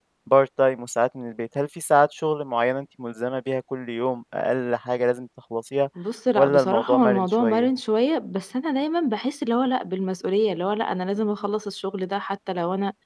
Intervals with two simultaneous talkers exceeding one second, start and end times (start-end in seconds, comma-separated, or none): 6.4-7.7